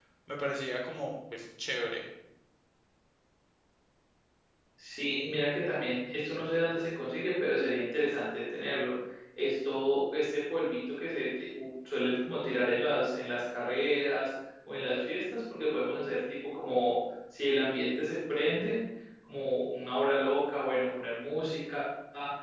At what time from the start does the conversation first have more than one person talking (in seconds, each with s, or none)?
none